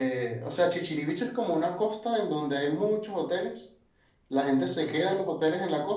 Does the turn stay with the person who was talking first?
Yes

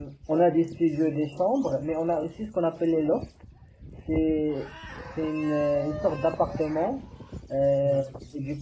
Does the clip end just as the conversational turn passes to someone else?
No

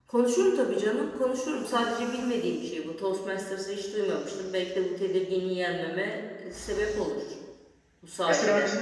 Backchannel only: No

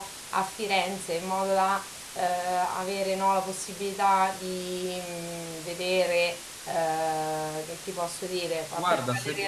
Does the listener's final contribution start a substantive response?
Yes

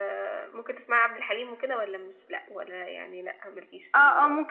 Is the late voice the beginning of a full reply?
Yes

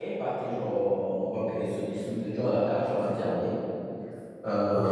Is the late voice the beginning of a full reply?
No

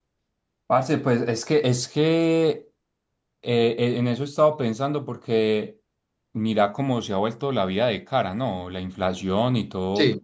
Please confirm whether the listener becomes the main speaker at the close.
No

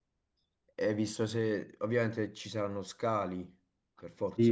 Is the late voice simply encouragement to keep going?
No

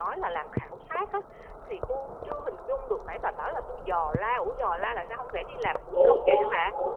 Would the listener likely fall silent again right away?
No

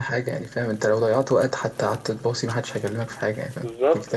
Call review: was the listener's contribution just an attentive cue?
No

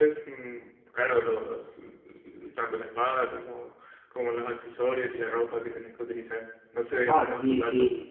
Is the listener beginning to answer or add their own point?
Yes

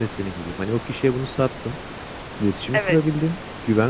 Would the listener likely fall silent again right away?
Yes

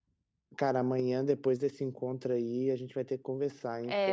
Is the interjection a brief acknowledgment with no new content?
No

